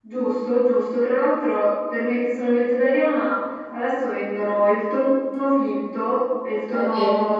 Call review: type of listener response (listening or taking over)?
listening